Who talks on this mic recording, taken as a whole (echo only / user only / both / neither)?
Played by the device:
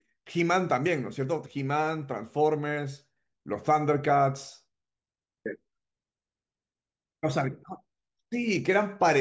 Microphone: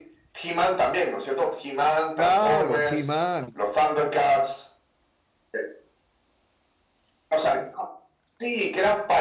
both